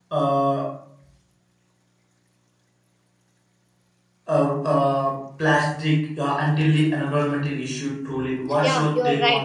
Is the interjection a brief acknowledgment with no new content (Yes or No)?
No